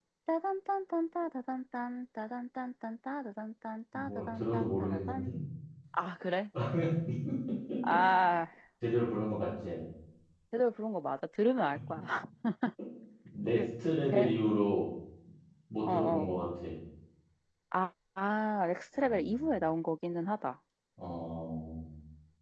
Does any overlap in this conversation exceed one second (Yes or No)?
Yes